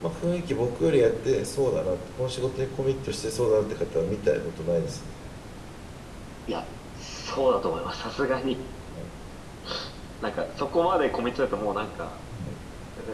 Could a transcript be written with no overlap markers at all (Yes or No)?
Yes